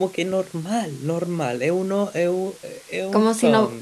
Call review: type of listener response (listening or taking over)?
taking over